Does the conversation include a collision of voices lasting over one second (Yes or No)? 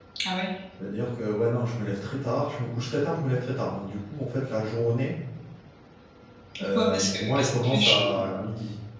Yes